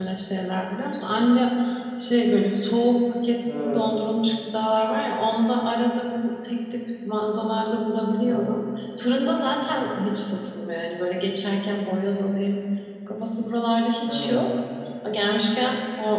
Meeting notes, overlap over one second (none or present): none